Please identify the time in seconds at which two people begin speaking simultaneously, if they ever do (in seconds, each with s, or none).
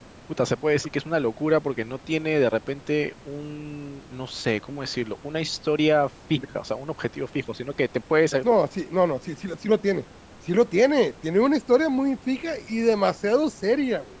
none